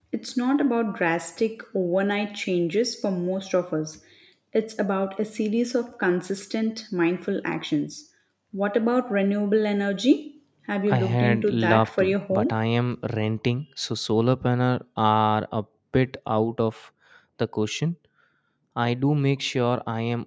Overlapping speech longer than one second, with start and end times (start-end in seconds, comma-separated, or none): 10.9-12.6